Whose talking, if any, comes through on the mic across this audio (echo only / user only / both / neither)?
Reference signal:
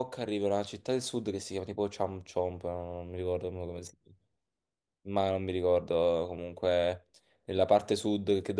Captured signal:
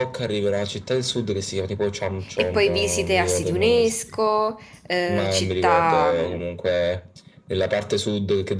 both